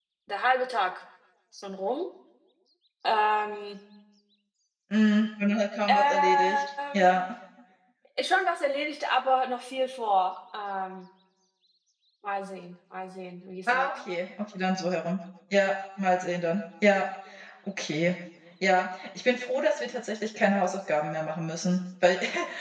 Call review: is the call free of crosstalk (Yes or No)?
No